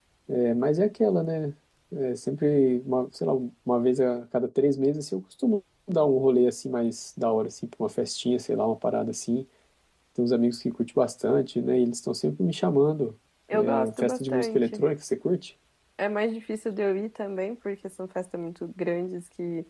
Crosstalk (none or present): present